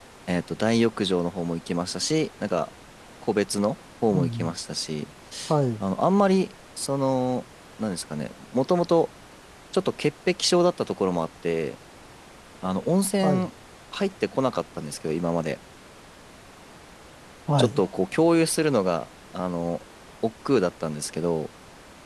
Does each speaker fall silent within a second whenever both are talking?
Yes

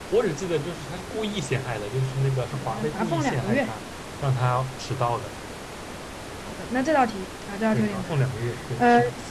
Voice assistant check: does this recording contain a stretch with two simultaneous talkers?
Yes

